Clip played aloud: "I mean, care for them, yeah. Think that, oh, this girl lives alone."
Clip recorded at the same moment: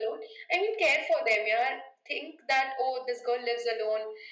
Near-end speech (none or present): none